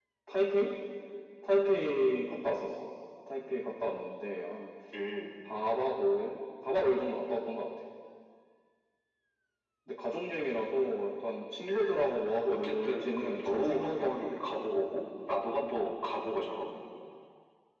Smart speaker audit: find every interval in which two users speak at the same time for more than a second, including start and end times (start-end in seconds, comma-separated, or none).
12.5-14.4